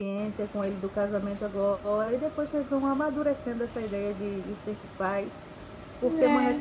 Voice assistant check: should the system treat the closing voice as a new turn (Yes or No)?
No